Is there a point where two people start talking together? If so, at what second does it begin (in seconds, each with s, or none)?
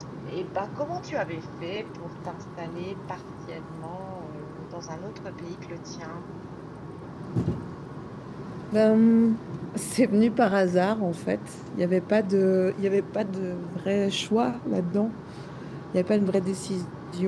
none